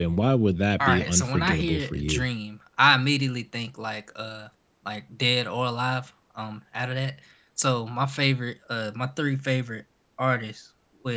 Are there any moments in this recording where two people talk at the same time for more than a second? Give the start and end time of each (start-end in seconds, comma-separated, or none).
0.8-2.3